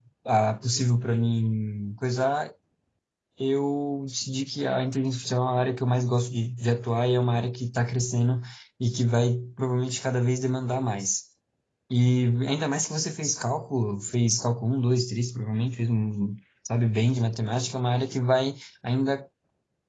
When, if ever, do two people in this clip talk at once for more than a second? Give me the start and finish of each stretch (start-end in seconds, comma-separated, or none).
none